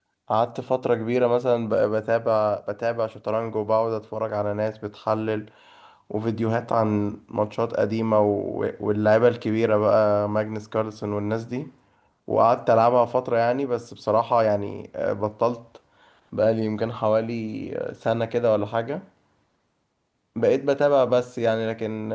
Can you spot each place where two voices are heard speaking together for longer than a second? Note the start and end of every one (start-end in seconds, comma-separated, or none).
none